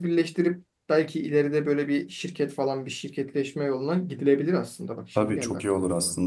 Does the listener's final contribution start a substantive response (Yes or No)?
Yes